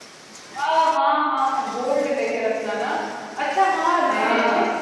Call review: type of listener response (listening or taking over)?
listening